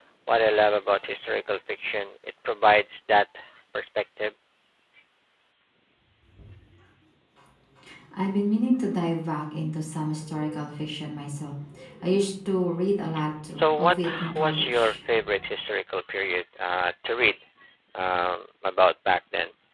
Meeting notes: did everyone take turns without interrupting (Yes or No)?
No